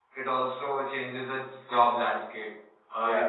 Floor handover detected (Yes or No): No